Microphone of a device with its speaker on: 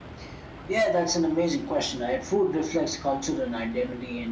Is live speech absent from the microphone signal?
Yes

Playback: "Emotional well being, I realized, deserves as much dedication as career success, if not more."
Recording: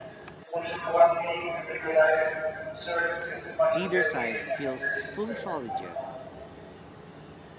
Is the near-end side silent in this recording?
No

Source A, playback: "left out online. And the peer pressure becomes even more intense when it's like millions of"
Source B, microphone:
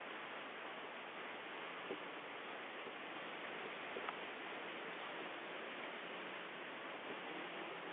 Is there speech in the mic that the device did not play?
No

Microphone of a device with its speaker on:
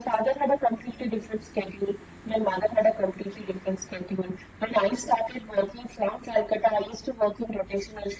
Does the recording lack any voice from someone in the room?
Yes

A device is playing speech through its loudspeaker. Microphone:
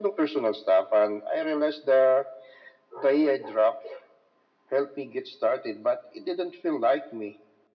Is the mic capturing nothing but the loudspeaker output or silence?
Yes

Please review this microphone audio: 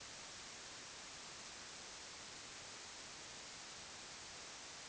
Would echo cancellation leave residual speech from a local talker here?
No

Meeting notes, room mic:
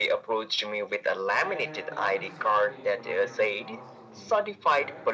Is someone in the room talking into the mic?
Yes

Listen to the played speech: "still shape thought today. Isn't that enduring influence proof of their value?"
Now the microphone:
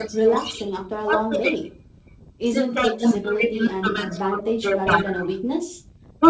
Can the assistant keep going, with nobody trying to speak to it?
No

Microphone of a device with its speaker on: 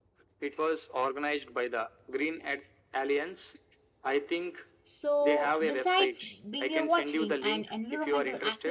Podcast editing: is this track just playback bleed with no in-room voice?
No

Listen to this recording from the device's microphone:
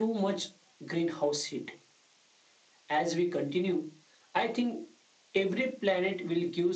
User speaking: No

